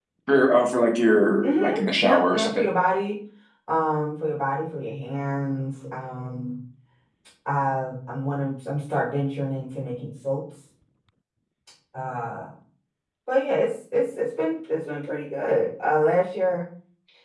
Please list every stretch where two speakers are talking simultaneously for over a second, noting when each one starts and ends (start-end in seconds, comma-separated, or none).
1.4-2.6